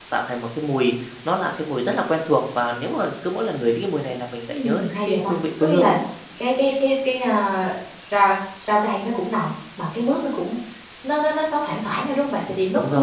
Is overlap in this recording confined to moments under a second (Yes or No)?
No